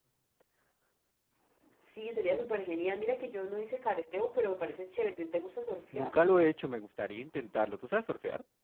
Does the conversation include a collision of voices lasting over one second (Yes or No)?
No